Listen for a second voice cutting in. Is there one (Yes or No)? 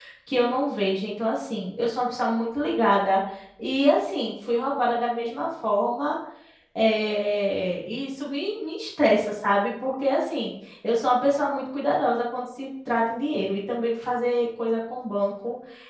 No